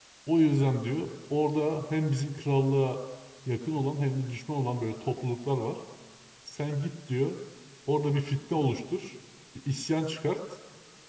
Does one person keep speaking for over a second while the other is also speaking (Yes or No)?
No